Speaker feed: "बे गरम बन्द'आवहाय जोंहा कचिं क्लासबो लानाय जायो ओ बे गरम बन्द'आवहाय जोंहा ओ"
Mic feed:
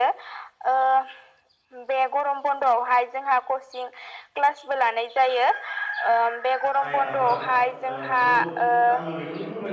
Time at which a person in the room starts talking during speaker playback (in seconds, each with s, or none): 6.8 s